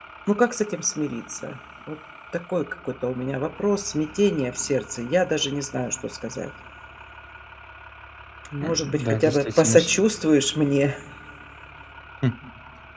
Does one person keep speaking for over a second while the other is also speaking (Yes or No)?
Yes